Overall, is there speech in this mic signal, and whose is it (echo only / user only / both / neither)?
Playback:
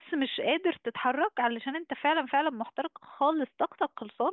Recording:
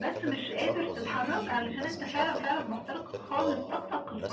both